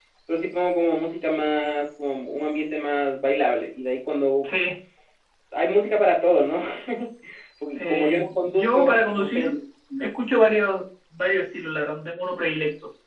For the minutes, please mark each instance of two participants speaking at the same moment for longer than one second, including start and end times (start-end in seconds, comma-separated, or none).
7.8-9.4